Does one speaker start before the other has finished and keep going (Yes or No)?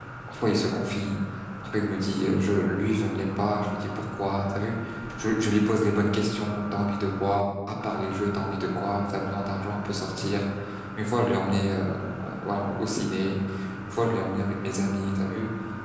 No